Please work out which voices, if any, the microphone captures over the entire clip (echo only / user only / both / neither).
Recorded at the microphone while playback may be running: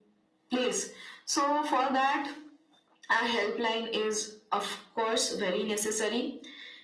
echo only